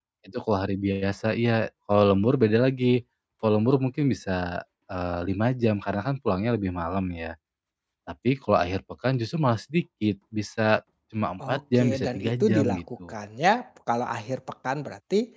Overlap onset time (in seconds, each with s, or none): 11.4 s